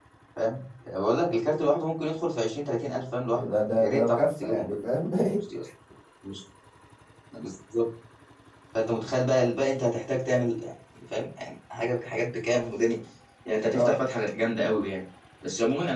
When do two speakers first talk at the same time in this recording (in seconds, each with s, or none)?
3.3 s